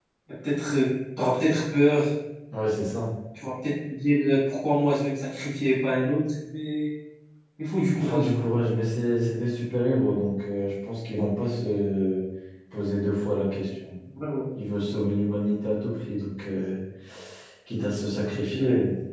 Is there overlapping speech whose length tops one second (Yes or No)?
No